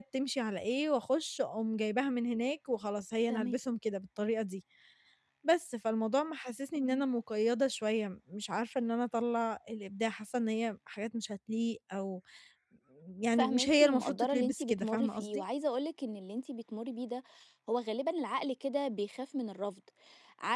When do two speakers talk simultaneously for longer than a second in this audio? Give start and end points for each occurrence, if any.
13.4-15.4

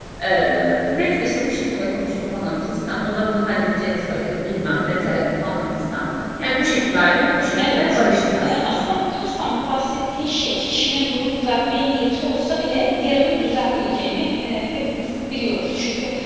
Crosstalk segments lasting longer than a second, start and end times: none

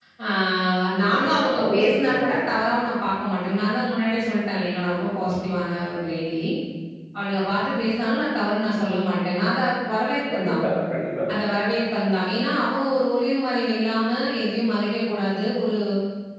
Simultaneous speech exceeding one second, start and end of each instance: 1.0-2.7

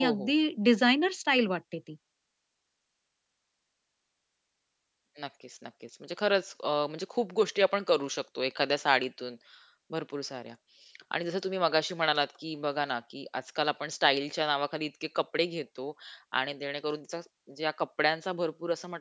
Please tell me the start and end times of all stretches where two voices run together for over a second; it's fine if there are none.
none

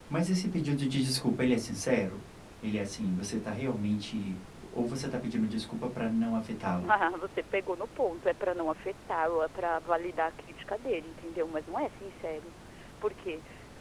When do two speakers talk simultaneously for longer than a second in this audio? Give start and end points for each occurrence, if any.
none

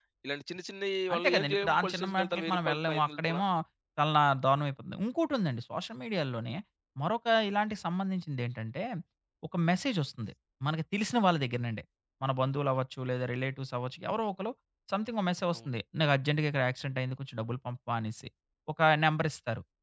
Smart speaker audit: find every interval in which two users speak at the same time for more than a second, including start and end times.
1.1-3.4

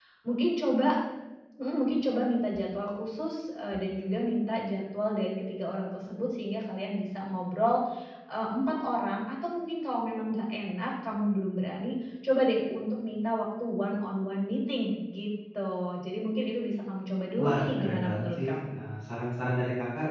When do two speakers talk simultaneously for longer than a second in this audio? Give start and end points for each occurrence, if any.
17.4-18.7

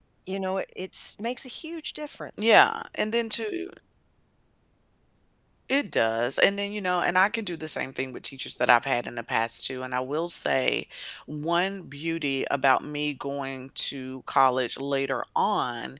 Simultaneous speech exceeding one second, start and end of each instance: none

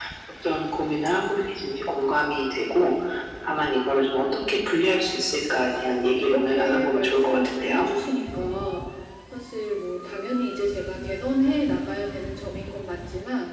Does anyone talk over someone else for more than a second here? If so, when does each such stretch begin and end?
5.9-7.9

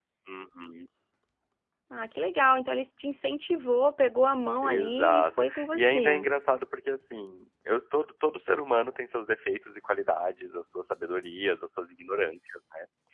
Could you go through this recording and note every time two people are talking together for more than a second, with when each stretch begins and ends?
4.6-6.3

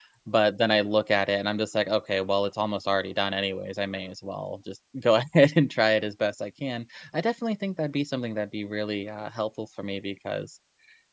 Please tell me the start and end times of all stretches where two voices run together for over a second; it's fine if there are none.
none

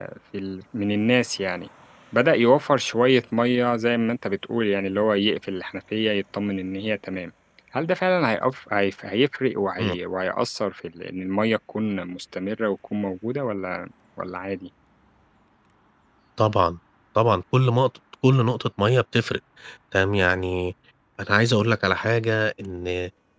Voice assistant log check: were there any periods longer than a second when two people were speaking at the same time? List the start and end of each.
none

